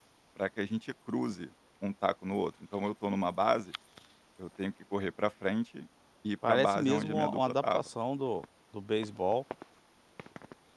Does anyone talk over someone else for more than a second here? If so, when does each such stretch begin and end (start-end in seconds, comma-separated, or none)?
6.5-7.9